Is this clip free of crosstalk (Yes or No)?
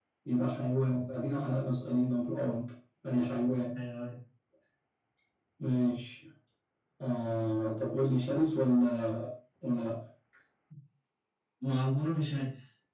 Yes